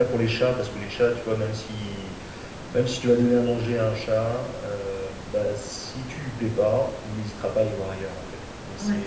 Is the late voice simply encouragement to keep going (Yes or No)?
Yes